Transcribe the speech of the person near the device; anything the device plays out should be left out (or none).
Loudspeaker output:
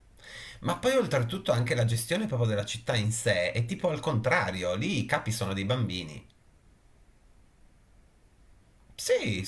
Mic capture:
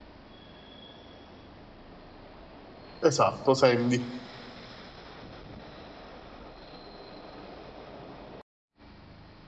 Esatto, Sandy.